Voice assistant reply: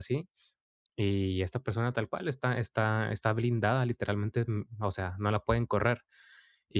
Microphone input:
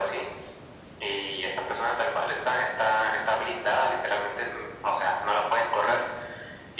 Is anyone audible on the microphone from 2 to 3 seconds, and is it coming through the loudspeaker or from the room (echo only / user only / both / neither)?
echo only